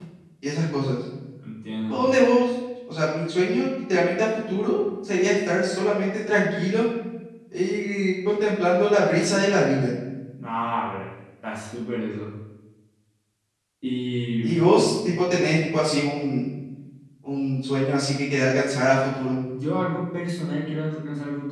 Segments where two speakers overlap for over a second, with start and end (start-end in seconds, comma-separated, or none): none